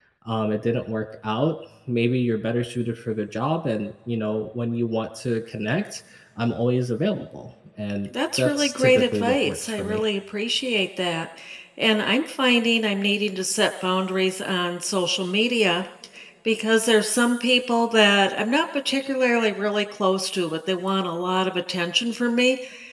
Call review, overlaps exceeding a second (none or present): present